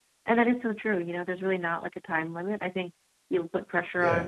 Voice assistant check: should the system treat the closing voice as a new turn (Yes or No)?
No